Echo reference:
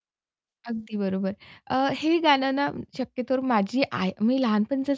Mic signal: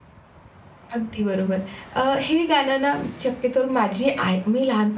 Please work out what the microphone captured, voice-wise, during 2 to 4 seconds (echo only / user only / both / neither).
echo only